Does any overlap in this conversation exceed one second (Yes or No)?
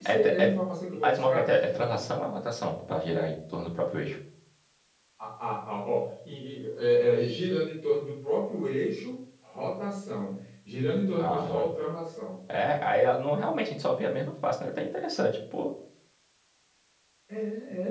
No